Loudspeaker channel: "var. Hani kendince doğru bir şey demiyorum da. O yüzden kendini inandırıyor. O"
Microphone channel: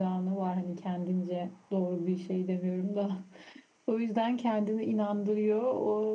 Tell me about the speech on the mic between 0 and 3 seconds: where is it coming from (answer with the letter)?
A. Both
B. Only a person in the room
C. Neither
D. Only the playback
D